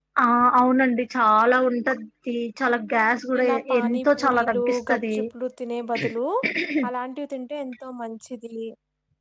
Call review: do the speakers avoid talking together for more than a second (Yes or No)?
No